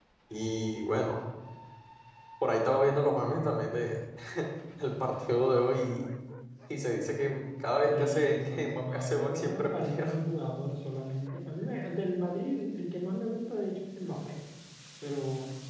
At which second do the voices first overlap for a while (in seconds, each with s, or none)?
7.8 s